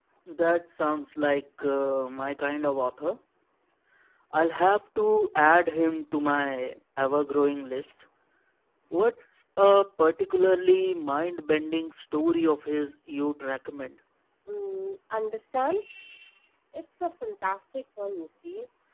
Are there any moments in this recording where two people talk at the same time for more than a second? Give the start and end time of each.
none

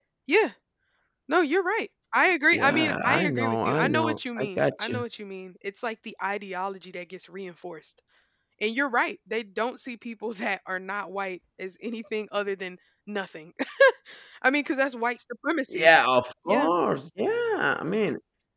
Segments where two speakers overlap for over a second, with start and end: 2.5-5.0

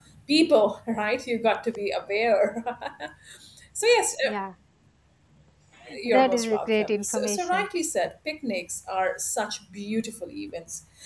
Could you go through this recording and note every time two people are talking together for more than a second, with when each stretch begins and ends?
6.0-7.6

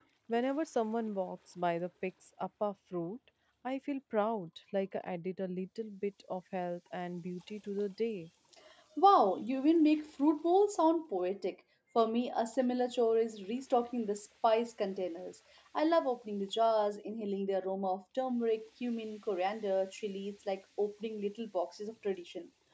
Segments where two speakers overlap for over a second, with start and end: none

